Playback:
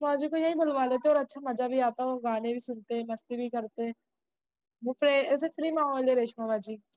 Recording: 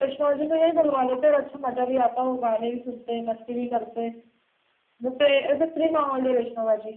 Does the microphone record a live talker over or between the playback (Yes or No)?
No